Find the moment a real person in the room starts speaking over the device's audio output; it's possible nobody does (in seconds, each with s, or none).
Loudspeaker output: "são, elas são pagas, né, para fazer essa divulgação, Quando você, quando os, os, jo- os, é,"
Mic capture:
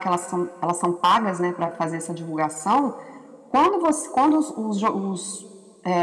none